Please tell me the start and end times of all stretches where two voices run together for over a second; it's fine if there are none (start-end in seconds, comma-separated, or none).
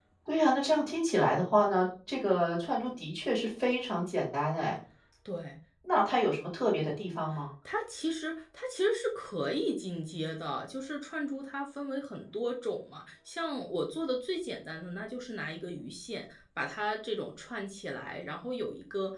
none